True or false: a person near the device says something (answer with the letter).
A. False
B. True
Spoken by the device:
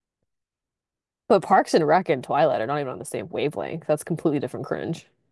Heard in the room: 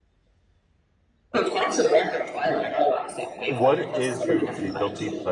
B